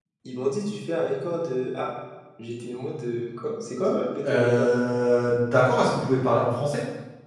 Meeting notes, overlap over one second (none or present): none